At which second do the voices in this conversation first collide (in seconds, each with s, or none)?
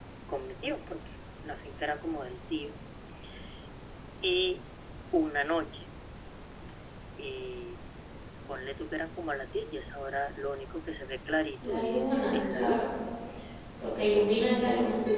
11.6 s